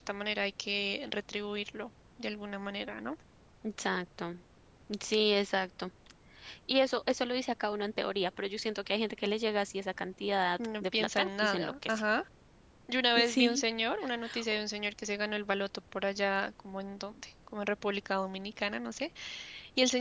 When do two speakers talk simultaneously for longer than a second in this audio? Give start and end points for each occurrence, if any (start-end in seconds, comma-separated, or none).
10.8-12.0